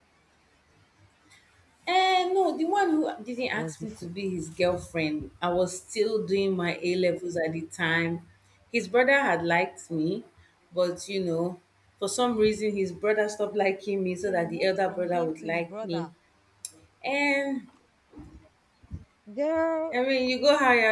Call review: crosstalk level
present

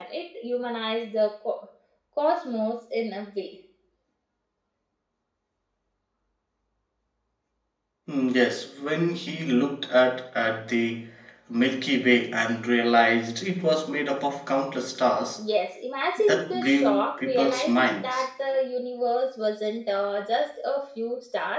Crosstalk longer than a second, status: present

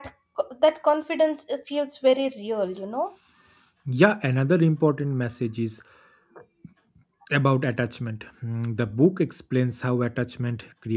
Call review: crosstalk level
none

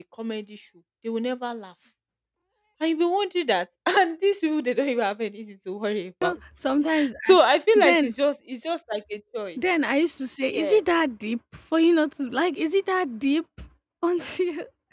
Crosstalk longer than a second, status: none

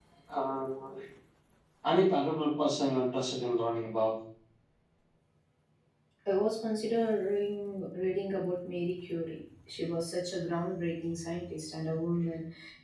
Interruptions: none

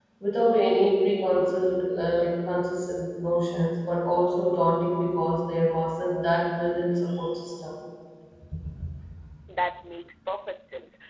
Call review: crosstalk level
none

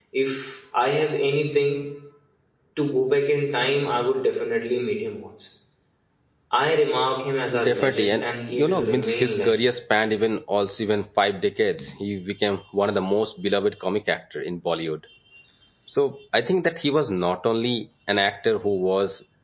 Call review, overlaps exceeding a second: present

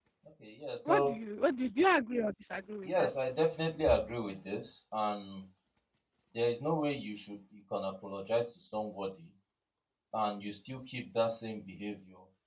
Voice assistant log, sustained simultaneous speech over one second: none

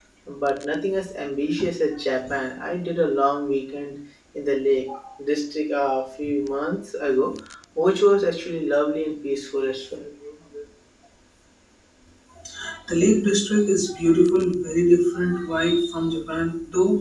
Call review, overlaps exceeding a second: none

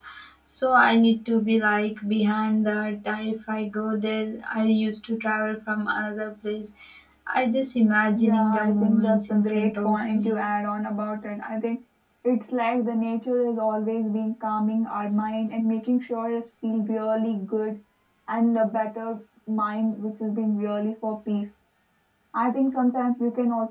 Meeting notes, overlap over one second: present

